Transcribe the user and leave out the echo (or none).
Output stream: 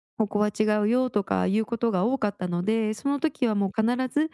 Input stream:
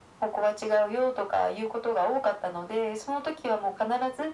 none